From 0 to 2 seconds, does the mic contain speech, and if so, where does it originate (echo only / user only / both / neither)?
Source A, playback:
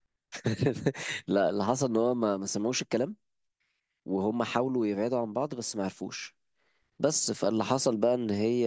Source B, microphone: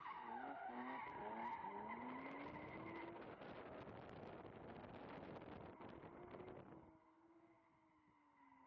neither